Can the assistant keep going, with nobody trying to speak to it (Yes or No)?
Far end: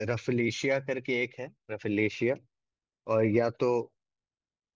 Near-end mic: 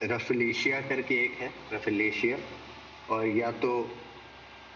Yes